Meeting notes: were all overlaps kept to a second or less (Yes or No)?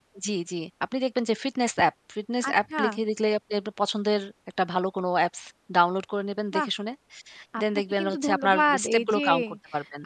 No